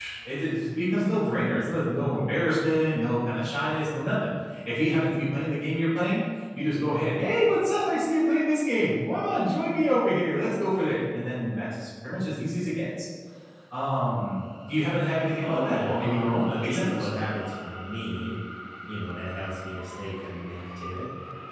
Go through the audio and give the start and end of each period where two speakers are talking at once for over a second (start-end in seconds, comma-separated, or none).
15.4-17.1